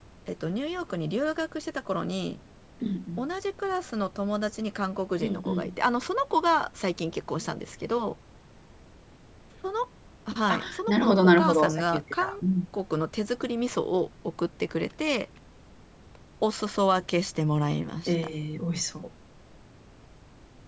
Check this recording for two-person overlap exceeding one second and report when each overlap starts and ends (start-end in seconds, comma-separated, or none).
10.5-12.3